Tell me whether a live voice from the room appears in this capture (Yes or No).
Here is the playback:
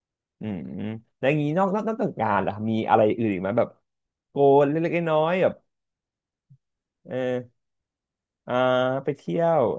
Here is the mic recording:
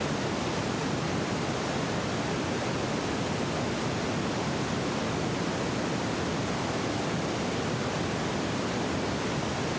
No